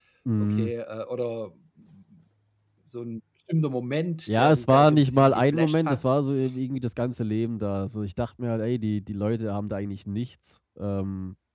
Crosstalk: present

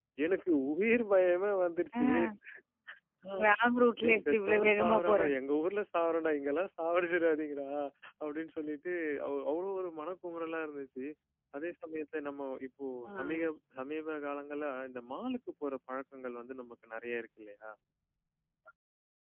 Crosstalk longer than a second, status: present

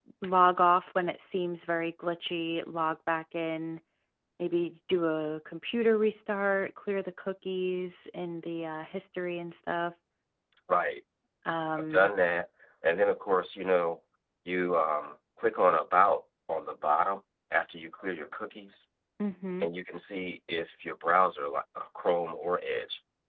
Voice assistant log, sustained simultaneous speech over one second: none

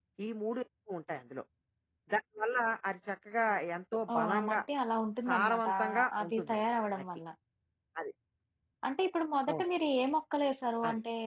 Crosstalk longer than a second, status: present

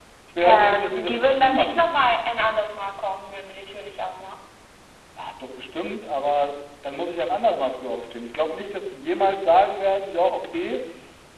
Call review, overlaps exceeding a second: present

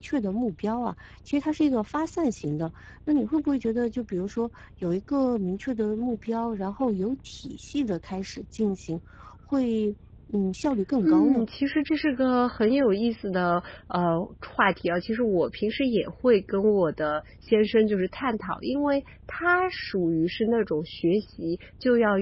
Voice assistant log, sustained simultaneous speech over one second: none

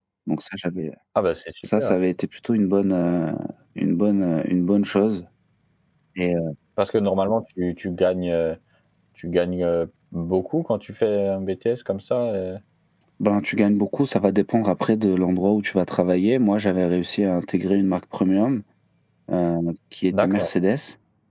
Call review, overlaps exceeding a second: none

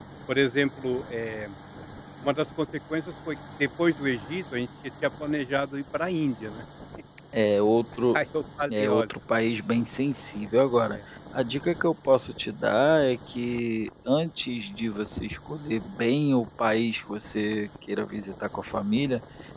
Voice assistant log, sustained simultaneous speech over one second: none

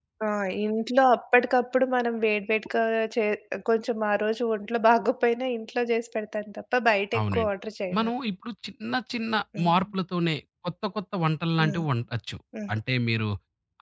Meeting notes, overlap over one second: none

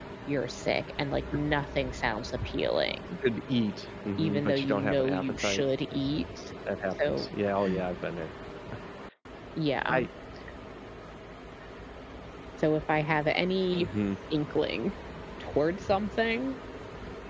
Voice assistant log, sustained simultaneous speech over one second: present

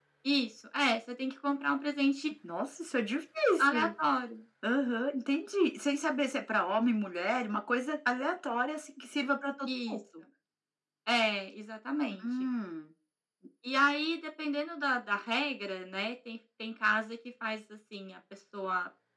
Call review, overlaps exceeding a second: none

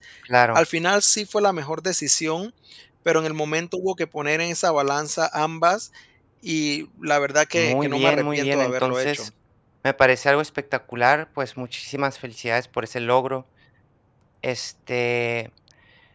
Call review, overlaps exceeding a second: present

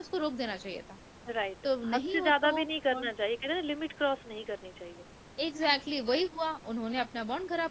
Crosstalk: present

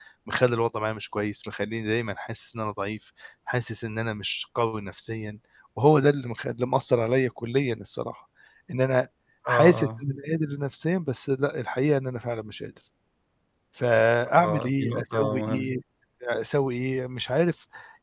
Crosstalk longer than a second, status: present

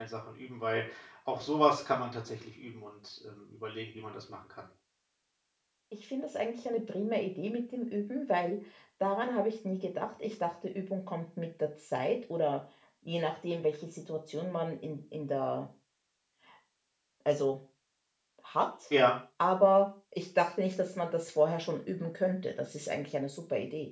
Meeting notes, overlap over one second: none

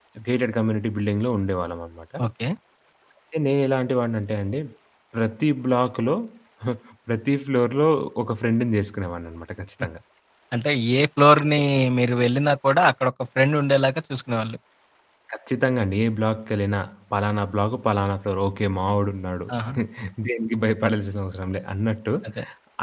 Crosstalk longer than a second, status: none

